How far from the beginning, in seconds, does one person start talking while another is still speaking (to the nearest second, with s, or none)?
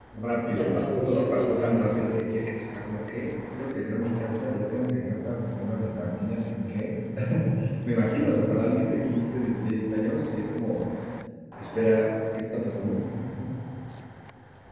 1 s